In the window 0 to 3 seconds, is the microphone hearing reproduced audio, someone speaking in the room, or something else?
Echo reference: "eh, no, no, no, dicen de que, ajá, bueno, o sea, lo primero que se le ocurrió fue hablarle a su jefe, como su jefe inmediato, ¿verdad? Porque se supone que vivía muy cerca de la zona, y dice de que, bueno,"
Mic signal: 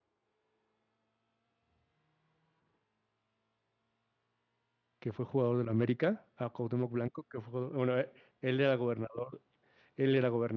neither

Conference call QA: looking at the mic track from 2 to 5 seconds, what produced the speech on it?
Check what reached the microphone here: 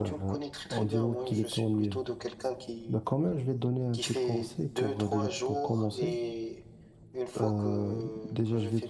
both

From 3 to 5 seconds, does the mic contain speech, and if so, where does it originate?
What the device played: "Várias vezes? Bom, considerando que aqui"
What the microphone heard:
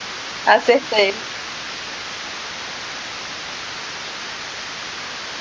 neither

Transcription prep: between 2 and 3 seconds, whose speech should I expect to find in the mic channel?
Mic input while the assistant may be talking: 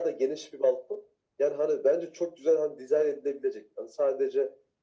echo only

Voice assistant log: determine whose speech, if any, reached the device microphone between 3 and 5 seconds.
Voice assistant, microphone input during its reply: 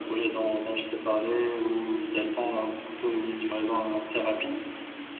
echo only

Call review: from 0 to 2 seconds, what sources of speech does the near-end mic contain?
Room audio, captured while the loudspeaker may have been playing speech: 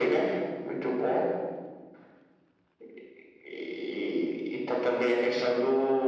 echo only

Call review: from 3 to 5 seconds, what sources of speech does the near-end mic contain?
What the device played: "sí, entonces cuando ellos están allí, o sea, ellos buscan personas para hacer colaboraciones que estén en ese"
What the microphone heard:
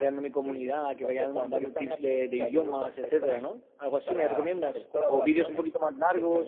both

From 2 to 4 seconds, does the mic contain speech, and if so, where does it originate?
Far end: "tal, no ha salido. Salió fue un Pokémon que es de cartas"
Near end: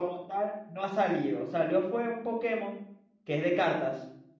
echo only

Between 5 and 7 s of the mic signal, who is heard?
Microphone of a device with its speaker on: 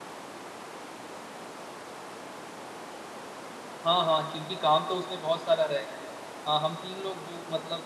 user only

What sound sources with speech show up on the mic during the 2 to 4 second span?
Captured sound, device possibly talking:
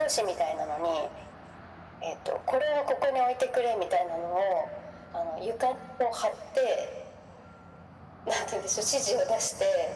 echo only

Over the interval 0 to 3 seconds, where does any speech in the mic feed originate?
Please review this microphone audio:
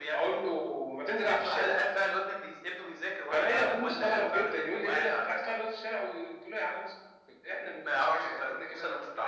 echo only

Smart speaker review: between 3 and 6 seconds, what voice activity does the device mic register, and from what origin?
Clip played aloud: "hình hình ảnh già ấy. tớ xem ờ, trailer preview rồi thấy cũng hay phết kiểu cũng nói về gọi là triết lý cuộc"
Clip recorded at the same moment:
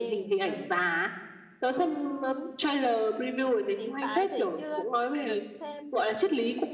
both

